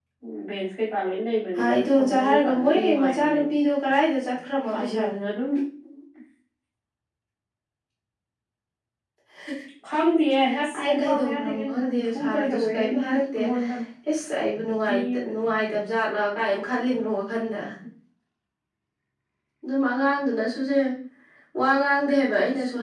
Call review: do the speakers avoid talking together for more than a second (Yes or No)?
No